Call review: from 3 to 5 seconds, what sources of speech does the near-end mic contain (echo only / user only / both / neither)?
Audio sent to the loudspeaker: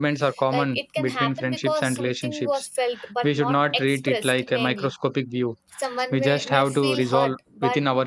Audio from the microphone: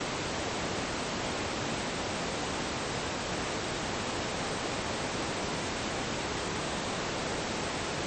neither